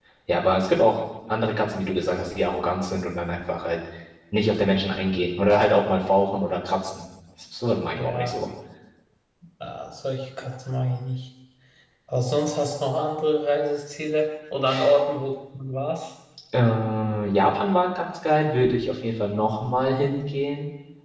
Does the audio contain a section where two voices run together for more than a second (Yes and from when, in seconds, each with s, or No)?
No